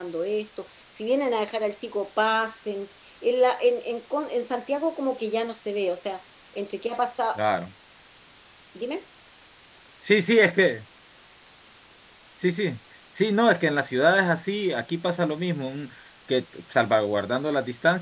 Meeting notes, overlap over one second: none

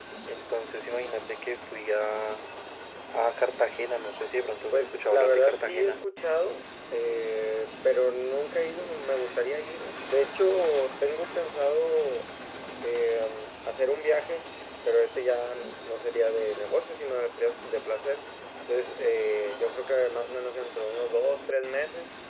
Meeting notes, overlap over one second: present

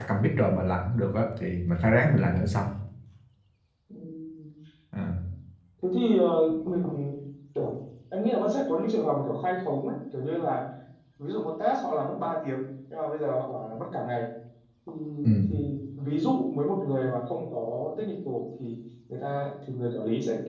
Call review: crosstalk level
none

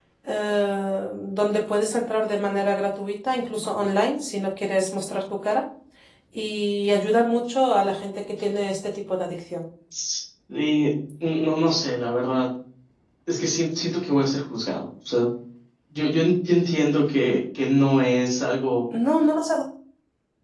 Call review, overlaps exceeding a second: none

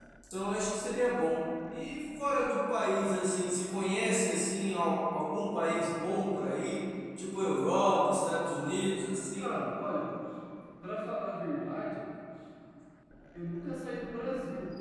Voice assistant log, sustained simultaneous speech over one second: none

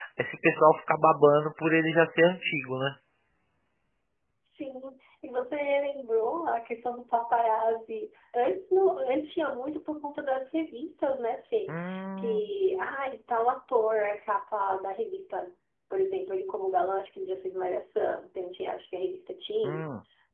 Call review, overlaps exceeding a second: none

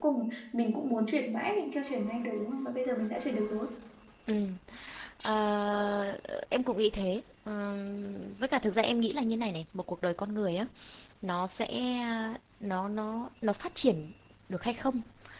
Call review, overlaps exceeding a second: none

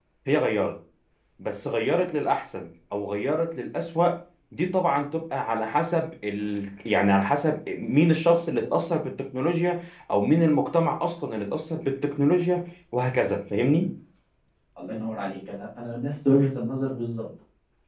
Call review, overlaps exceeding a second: none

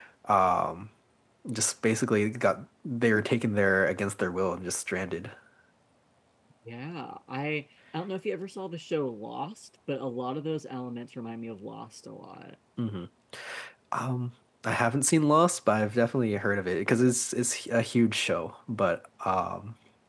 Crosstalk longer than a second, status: none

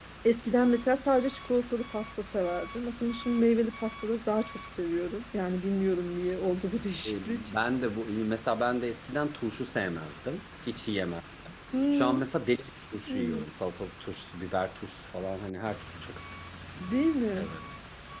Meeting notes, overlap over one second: none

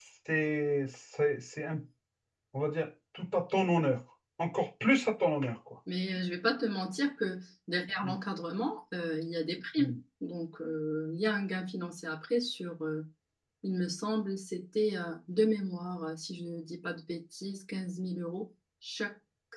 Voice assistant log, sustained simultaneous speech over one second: none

